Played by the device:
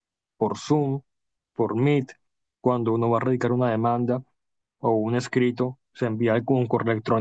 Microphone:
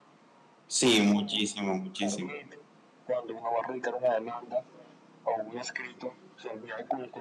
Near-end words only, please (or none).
sí, muchísimo, muchísimo.